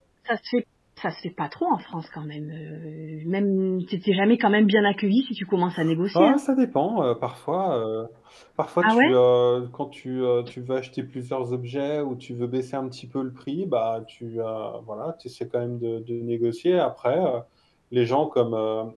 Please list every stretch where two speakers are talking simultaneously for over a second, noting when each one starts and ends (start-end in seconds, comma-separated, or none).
none